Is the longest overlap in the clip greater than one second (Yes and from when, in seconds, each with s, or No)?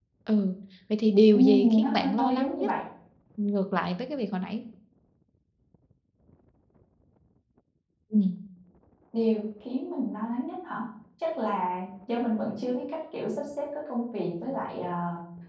Yes, from 1.3 s